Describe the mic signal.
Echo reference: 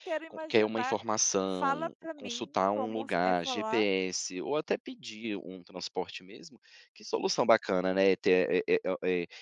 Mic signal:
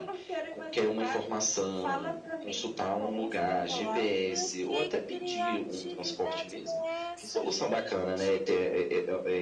both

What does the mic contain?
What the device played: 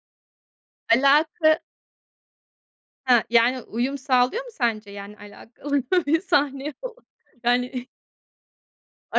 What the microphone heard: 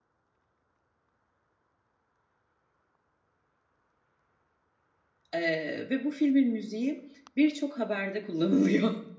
user only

